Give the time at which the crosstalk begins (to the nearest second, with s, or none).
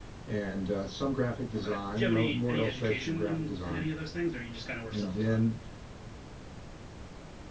2 s